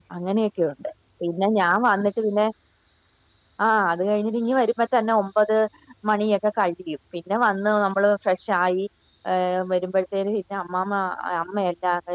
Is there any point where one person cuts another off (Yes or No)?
No